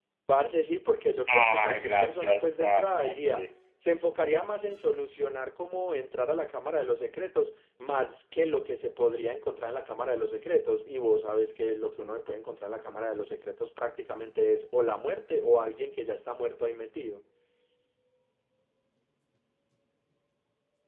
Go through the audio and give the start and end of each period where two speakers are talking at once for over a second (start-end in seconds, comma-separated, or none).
1.3-3.5